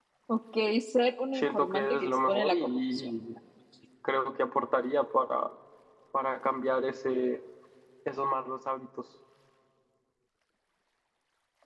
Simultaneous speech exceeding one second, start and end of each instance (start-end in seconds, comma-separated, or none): 1.4-3.1